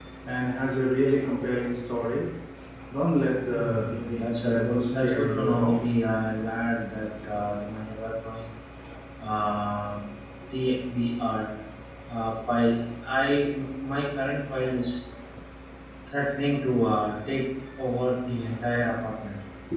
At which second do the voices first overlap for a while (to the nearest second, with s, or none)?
4 s